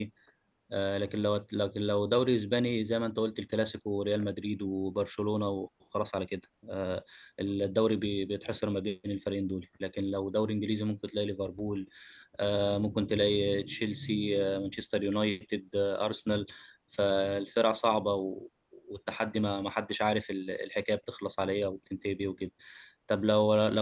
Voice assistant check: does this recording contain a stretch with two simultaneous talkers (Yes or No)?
No